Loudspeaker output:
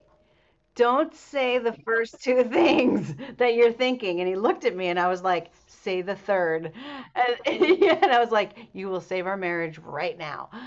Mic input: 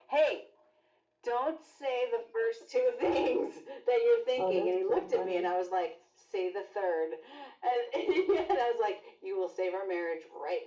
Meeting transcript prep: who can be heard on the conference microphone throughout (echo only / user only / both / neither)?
both